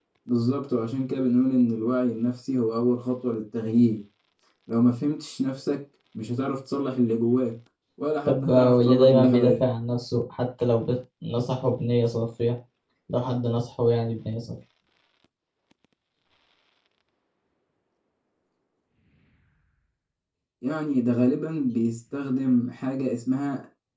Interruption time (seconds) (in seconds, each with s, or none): 8.3 s